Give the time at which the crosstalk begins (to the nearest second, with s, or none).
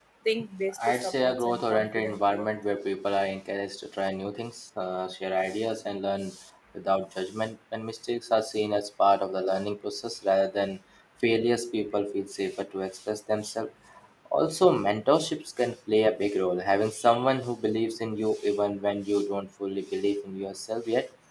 1 s